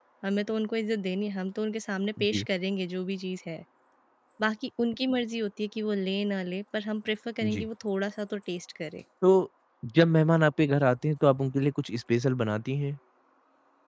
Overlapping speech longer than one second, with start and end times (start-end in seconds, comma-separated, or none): none